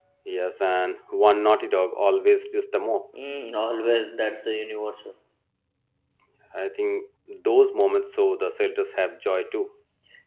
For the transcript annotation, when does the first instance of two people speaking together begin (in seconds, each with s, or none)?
none